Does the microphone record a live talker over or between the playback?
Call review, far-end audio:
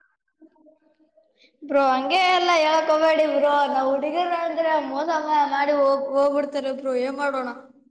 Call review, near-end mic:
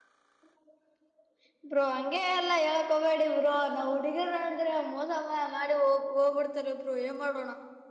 No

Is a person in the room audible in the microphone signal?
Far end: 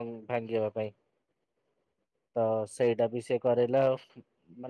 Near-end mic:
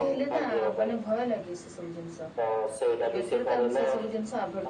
Yes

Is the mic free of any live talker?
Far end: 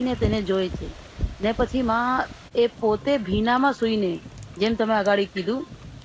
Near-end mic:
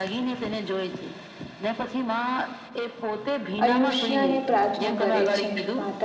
No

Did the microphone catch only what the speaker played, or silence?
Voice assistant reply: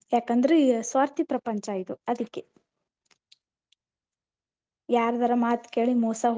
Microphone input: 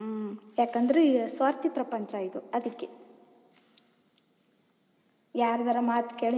Yes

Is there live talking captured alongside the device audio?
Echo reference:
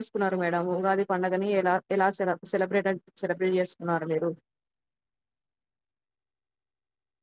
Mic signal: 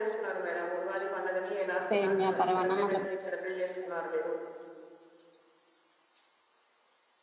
Yes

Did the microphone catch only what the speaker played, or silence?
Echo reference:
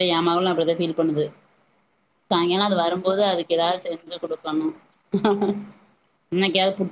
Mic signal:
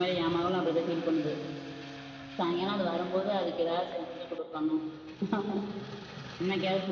Yes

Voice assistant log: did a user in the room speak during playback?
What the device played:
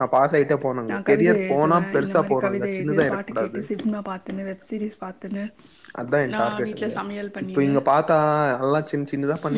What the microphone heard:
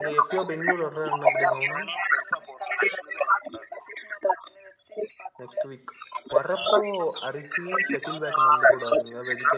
Yes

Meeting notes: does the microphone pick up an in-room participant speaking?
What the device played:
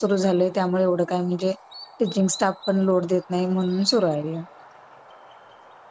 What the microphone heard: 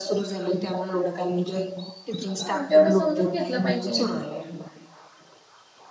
Yes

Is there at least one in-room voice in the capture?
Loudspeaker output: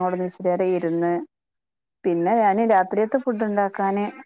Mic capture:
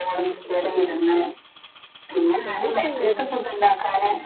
Yes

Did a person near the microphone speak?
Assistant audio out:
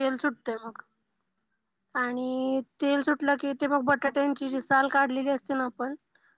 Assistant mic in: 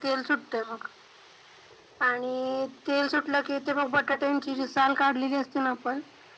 No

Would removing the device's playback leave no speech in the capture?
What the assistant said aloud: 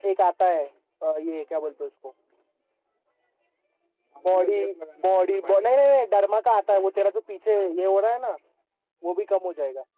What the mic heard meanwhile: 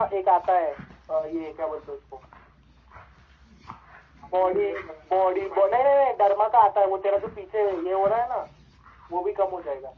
Yes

